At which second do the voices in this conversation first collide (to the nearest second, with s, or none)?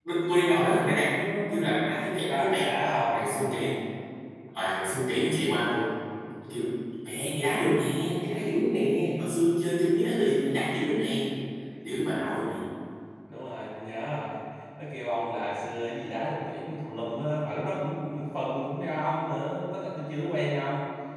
2 s